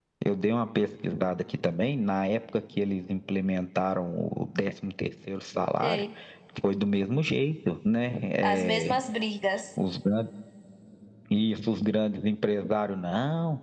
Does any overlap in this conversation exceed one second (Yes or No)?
No